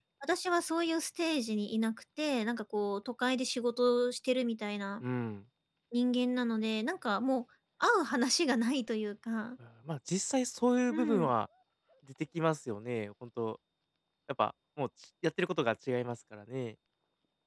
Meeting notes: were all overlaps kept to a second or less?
Yes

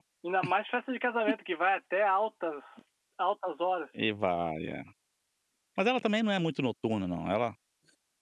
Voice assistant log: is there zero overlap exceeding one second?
Yes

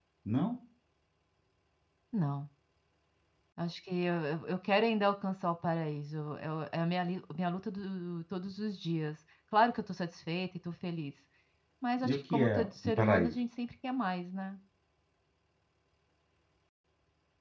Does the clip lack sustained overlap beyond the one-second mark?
No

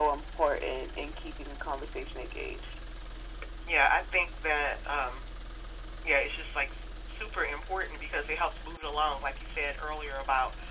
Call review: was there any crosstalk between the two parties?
No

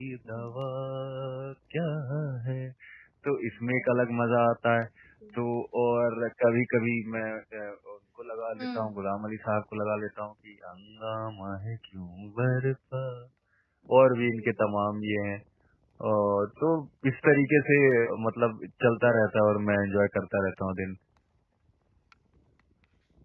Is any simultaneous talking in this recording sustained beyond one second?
No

